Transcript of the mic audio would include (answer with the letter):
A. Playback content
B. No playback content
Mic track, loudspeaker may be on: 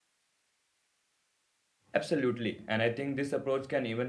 B